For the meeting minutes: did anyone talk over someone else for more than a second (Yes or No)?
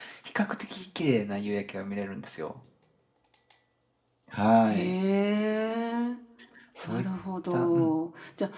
No